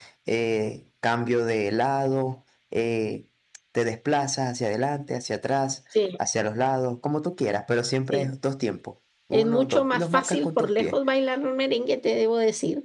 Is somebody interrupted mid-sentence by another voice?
Yes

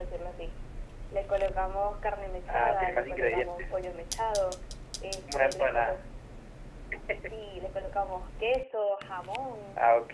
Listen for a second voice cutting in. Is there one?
Yes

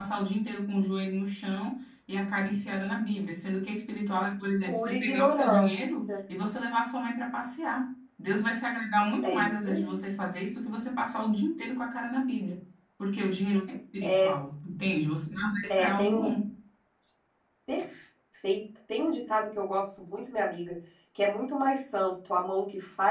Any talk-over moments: Yes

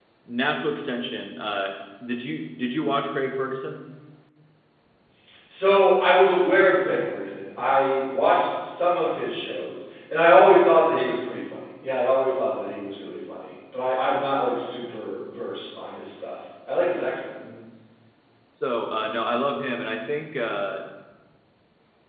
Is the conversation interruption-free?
Yes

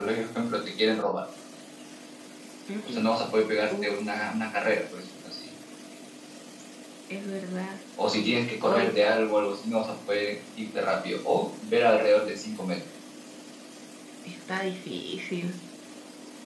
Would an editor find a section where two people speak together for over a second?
No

